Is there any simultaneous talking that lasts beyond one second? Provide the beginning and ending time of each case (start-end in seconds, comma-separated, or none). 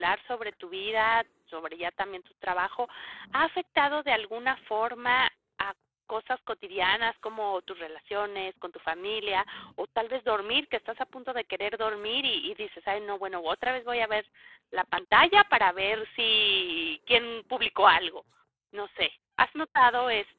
none